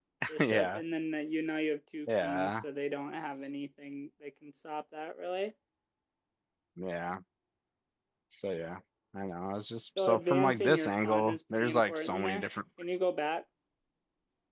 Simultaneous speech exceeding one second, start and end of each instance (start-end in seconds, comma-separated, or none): 10.0-12.5